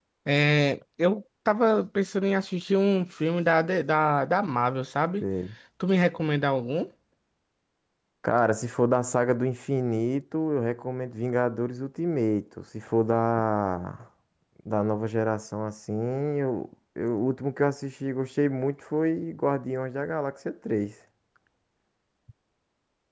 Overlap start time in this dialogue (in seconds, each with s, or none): none